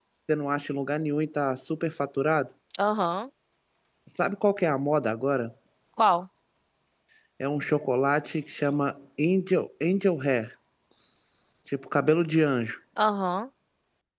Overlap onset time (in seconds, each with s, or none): none